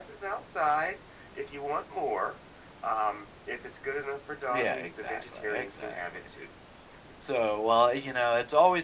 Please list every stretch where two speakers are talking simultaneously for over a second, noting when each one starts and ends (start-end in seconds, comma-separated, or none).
4.5-6.2